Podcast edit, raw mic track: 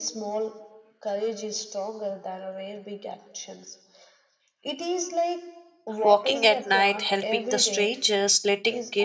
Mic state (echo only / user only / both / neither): both